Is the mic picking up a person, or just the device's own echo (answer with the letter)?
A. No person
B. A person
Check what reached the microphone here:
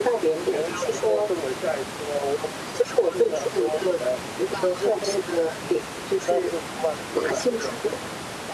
A